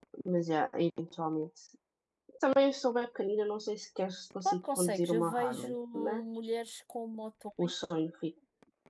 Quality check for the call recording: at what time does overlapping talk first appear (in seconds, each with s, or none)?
4.5 s